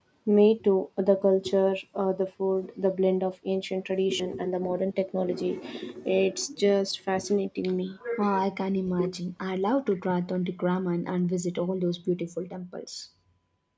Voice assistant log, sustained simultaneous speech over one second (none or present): none